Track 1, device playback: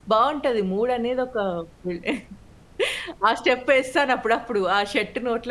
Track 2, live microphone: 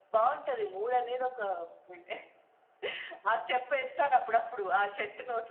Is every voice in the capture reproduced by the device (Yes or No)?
Yes